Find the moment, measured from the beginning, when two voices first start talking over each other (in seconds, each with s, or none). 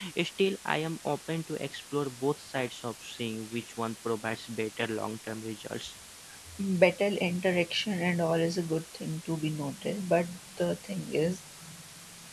none